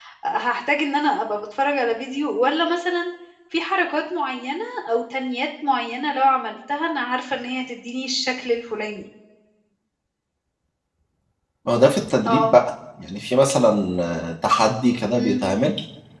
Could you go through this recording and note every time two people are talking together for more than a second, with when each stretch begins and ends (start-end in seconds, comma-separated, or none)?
none